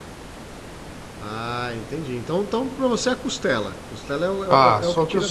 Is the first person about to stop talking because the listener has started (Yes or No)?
Yes